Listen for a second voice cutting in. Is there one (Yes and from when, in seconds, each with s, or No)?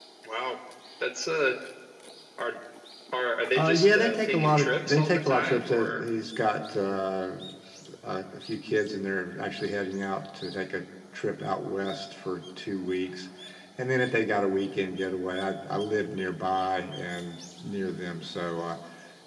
Yes, from 3.5 s